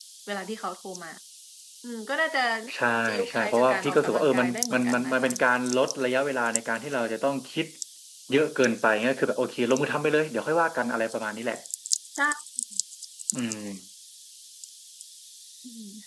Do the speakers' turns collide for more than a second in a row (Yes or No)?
Yes